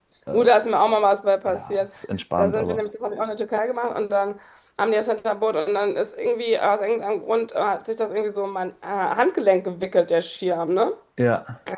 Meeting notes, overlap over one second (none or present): none